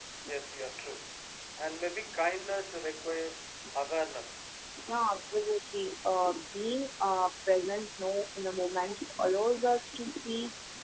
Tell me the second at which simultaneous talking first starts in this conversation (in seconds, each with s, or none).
none